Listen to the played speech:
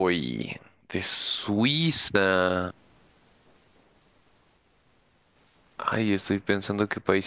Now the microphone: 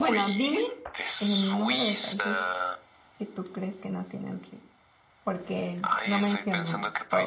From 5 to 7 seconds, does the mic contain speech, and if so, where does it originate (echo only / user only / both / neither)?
both